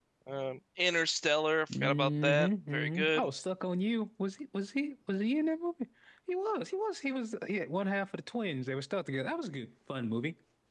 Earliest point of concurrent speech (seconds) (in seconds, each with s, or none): 1.7 s